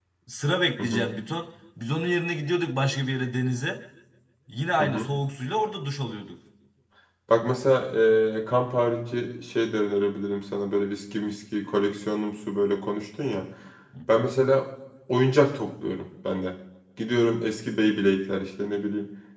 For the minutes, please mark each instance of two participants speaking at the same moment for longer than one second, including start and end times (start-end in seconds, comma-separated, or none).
none